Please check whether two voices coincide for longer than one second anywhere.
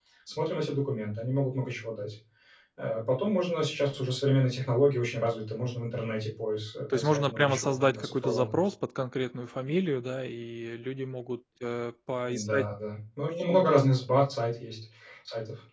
Yes, from 6.9 s

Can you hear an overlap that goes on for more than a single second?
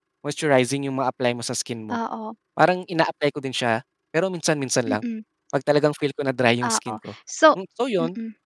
No

